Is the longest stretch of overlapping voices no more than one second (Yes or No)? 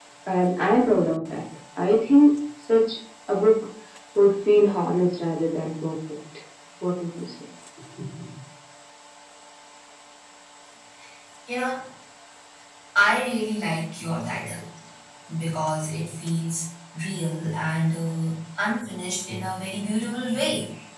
Yes